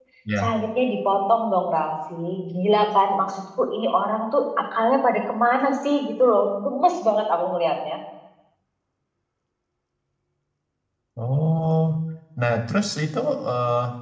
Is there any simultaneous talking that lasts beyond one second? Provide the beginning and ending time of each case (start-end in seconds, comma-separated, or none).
none